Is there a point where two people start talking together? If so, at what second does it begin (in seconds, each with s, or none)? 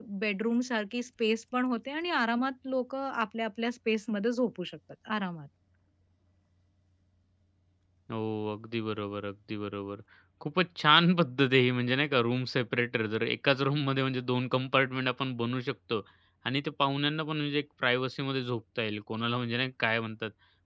none